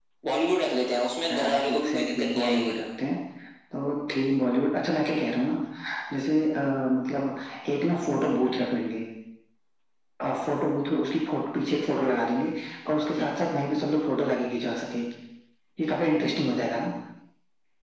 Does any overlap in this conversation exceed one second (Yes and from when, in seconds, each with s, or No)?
Yes, from 1.3 s